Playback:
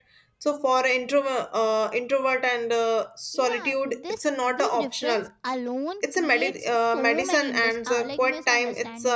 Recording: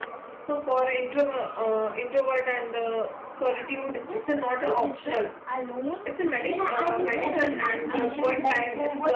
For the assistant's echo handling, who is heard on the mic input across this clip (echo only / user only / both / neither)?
both